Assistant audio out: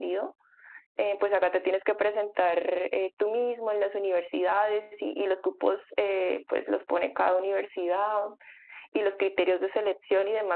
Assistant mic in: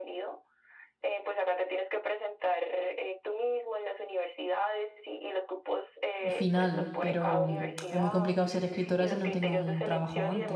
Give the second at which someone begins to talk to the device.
6 s

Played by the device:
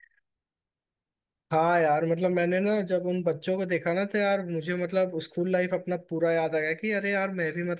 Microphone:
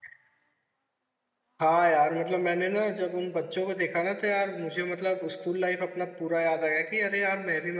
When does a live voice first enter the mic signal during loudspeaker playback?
none

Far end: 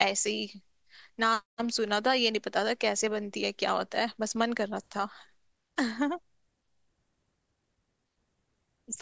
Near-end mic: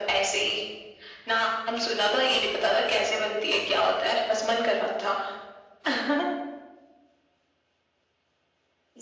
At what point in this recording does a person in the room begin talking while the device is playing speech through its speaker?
none

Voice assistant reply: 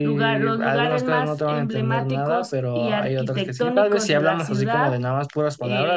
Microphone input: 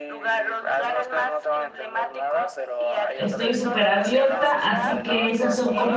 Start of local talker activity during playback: 3 s

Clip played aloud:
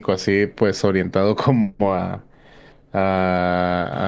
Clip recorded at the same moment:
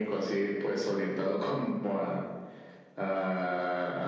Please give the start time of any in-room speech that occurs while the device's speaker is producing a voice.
none

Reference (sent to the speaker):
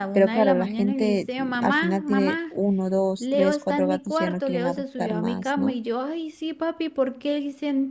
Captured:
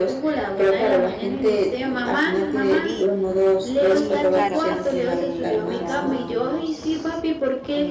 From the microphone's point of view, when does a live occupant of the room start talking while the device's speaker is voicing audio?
3 s

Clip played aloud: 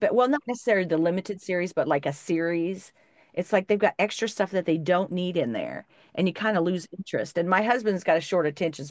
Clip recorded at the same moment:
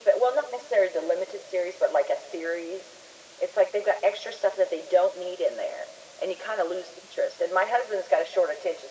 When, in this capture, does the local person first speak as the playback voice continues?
none

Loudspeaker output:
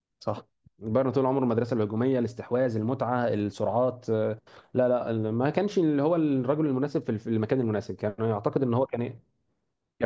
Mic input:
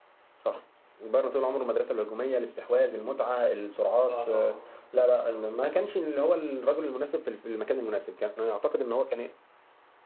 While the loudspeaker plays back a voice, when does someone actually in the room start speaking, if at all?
4 s

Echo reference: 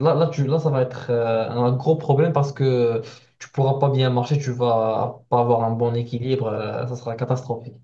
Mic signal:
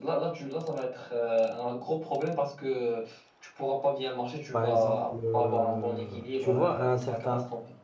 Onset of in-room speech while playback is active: 5 s

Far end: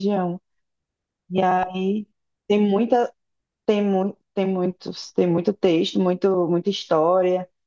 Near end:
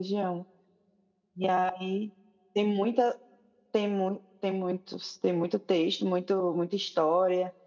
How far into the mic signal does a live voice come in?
none

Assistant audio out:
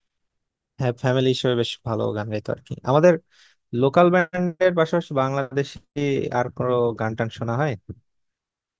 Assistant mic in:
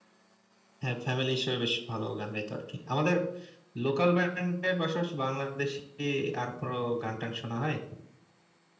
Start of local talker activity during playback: none

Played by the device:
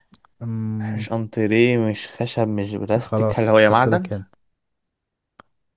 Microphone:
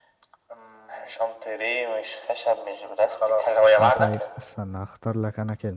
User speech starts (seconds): 4 s

